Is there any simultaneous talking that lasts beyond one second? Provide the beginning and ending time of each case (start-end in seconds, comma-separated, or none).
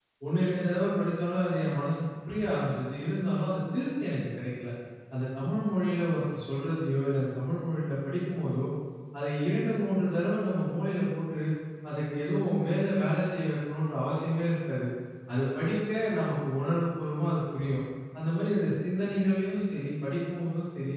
none